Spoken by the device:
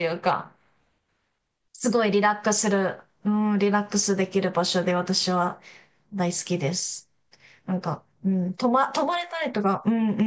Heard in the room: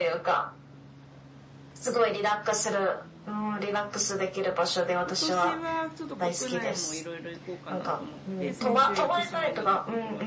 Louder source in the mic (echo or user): echo